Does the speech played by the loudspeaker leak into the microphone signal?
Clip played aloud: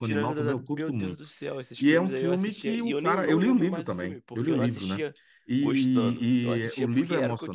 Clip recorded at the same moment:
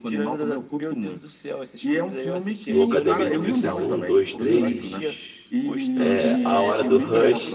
Yes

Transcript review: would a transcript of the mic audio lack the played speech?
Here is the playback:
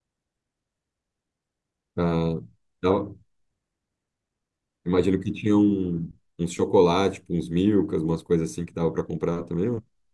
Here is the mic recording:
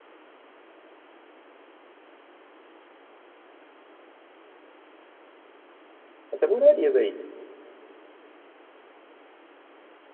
Yes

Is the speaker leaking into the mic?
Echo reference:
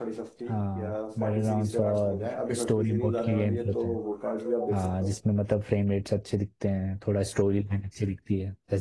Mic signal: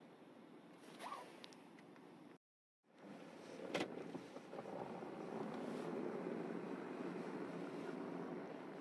No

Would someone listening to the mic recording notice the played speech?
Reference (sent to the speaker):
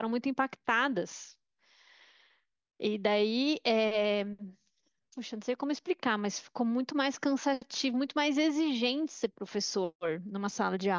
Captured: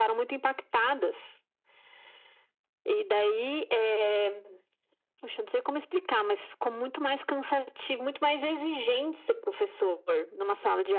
Yes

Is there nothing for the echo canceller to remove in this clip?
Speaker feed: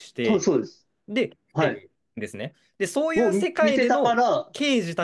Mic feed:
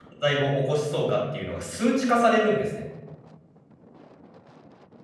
Yes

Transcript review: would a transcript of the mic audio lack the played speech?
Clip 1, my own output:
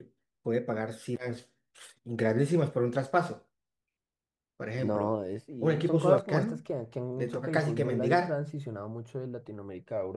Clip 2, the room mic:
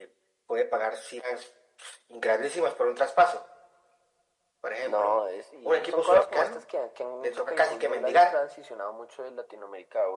No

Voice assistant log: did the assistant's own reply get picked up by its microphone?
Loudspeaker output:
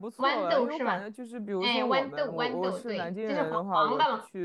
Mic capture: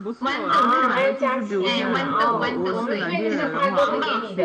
Yes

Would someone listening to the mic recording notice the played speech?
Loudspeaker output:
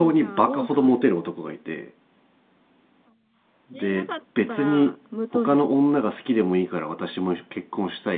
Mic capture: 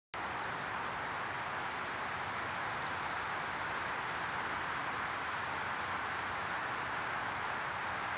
No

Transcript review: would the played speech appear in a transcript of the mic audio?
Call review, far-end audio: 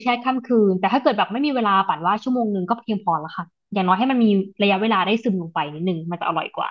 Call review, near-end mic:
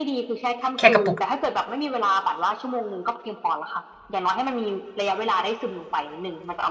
Yes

